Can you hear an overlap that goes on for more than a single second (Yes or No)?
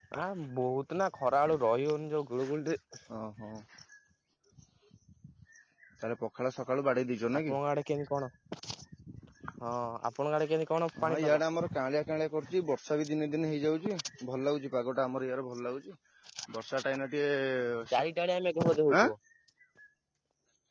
No